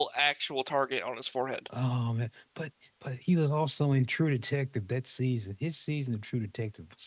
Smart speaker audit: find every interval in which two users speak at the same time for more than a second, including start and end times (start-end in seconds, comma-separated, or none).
none